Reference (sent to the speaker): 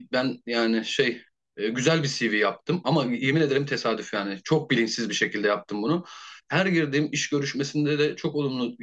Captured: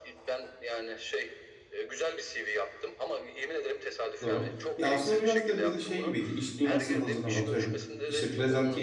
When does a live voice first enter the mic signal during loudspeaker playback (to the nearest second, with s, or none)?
4 s